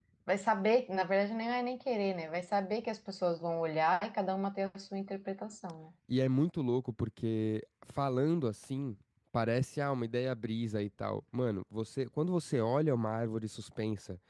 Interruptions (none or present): none